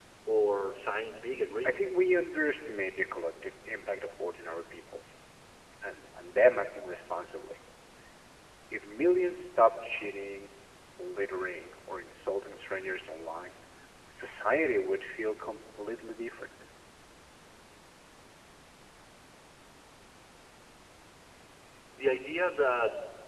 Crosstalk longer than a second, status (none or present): none